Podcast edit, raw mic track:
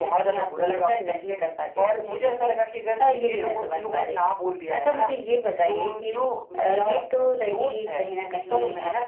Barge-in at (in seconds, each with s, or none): none